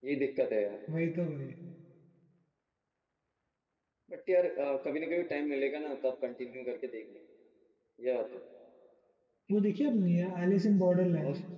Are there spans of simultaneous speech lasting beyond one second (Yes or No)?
No